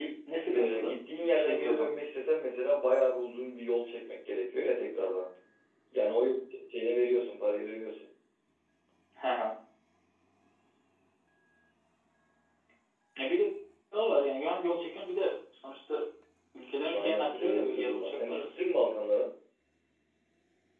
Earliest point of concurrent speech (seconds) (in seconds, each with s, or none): 0.5 s